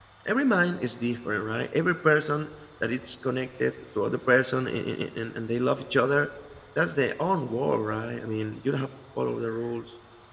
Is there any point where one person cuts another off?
No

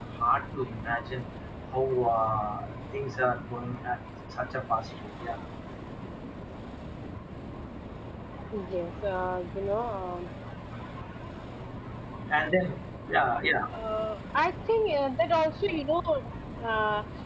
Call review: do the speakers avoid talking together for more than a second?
Yes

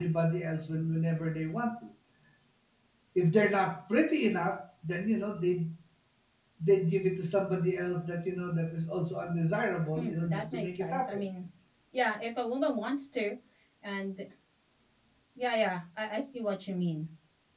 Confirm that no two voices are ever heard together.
No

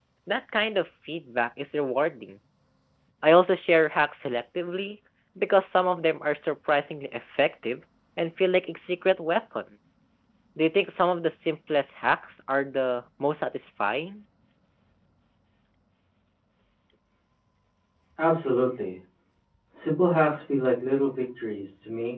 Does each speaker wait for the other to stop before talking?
Yes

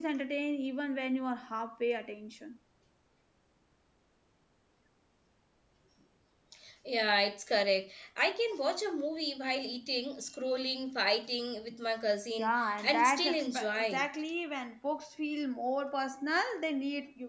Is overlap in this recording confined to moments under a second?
No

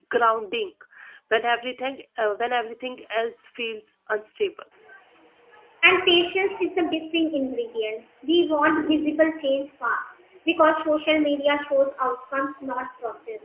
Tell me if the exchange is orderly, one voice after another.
Yes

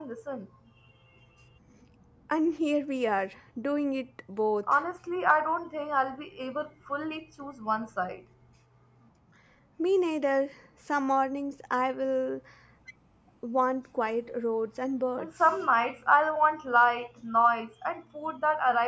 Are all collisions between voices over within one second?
Yes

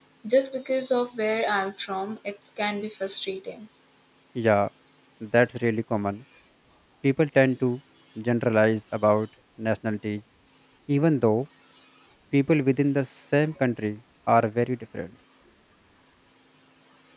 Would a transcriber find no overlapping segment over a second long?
Yes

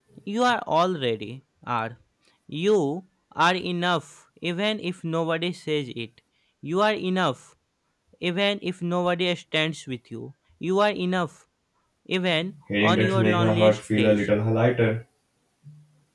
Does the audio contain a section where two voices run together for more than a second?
Yes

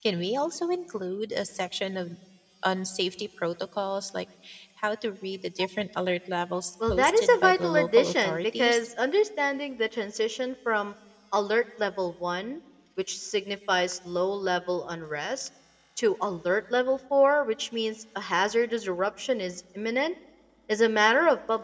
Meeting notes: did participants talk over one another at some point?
Yes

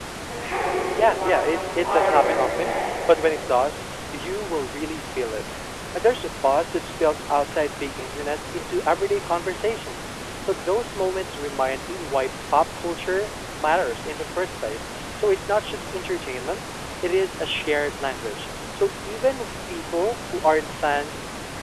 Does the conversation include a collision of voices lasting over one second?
Yes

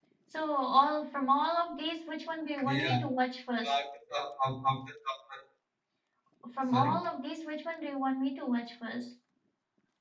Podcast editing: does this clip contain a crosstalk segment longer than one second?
No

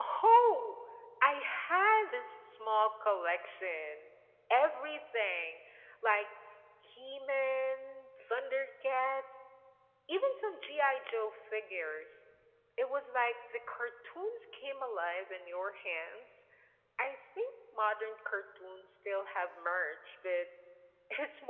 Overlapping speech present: No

